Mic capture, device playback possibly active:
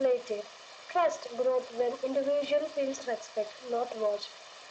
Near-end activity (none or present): none